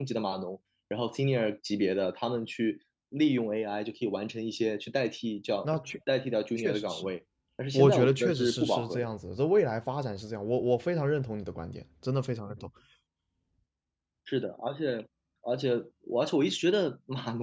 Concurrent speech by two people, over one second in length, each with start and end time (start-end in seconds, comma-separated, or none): 7.7-9.1